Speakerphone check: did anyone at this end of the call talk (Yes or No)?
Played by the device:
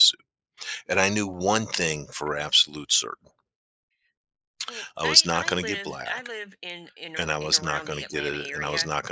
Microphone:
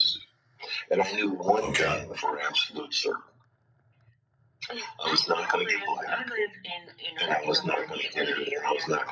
Yes